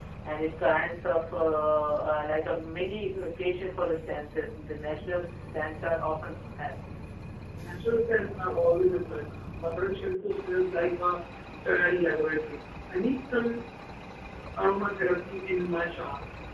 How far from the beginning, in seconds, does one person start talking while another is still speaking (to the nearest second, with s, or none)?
none